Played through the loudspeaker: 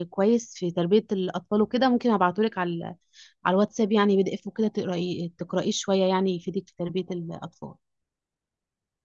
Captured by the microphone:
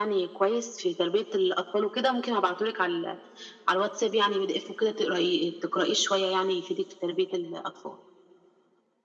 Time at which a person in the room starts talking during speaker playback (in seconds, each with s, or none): none